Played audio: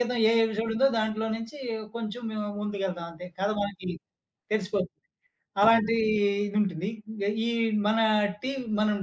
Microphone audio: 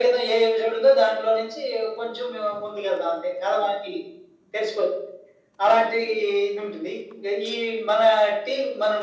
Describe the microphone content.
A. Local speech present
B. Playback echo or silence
B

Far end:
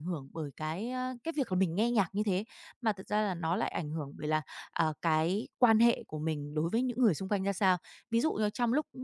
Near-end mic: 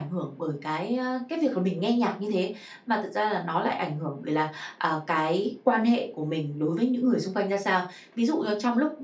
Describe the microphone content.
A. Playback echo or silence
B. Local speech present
A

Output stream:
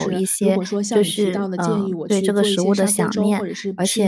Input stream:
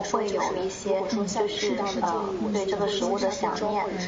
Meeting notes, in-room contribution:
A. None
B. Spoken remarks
B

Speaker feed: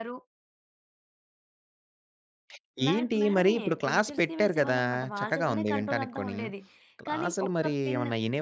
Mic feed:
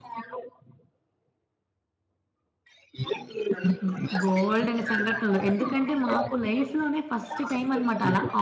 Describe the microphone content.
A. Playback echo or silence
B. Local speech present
B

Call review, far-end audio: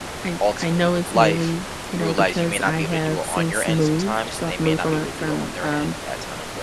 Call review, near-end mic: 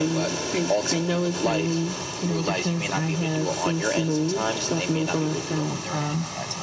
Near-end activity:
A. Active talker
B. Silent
B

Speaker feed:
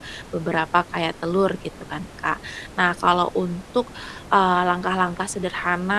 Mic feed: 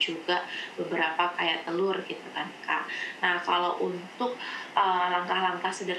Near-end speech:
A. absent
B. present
A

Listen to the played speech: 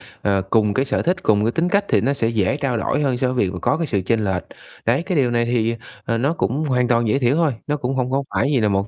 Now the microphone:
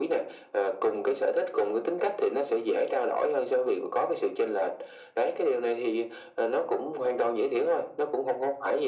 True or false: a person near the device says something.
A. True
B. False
B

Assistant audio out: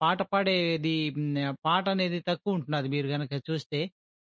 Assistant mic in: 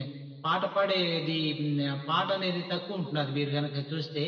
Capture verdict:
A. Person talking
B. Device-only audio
B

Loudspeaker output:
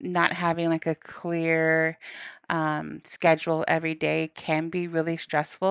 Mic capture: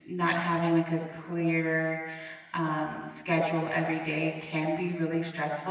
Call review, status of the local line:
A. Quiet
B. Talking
A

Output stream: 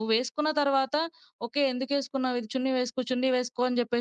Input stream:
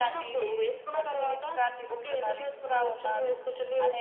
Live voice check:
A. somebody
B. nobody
A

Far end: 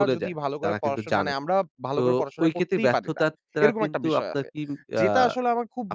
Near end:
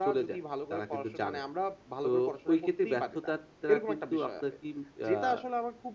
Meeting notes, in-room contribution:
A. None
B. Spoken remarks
A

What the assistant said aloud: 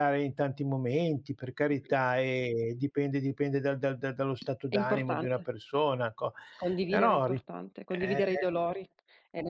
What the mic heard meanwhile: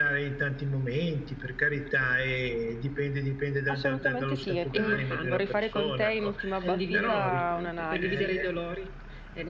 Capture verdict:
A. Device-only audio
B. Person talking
B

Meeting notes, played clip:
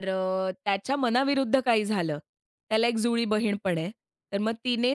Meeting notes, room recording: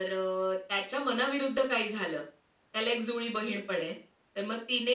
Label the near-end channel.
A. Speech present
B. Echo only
B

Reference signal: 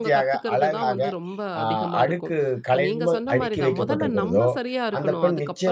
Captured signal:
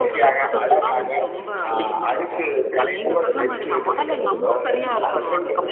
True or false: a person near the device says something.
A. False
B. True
A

